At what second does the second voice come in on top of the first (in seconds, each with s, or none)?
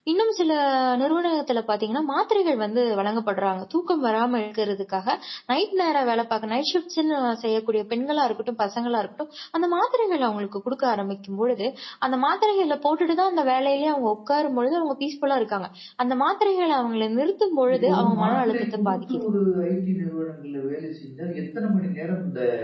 17.7 s